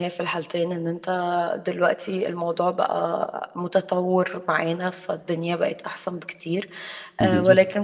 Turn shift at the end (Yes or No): No